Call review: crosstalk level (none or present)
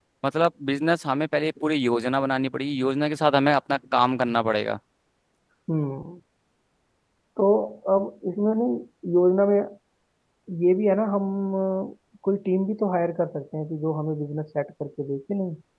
none